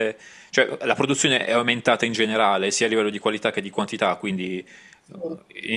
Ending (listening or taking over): listening